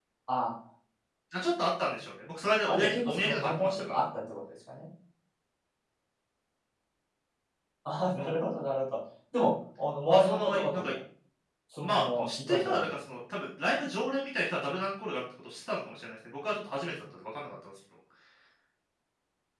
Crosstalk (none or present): present